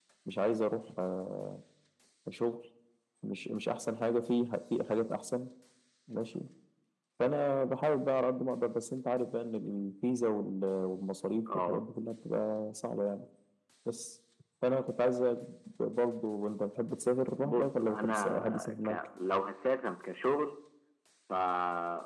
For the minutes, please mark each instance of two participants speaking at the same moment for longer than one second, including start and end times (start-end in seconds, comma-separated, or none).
17.4-19.0